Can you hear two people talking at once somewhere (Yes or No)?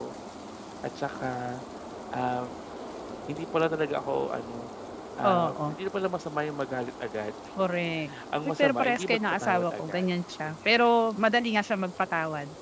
Yes